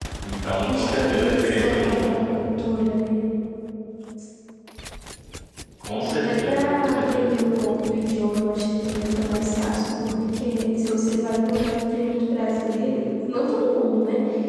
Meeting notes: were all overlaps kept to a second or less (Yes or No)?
No